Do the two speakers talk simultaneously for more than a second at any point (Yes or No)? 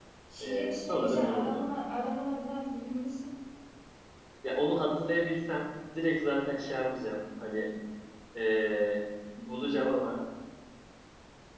Yes